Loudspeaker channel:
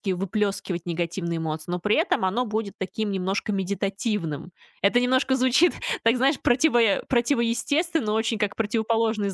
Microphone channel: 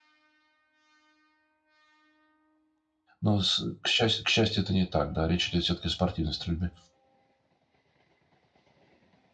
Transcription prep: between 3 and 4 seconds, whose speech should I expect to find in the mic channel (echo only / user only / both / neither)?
user only